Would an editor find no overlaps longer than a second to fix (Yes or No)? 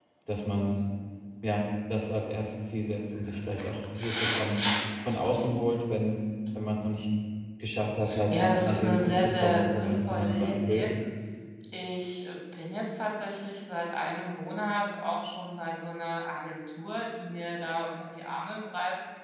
No